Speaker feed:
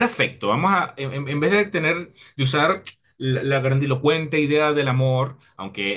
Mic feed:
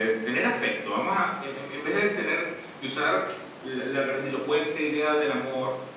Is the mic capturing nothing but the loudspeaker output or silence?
Yes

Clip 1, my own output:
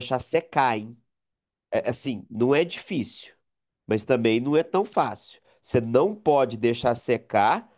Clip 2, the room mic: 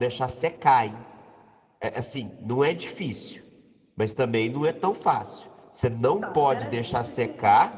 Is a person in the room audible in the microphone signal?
Yes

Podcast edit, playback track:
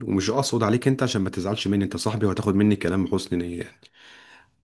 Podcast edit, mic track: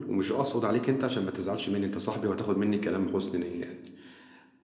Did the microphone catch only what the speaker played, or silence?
Yes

